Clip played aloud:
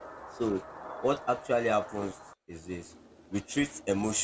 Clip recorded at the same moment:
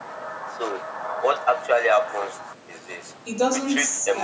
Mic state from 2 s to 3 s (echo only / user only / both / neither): echo only